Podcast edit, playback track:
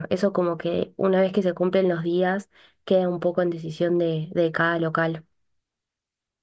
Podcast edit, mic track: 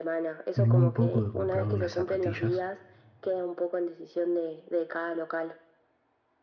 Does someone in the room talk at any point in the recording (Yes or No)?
Yes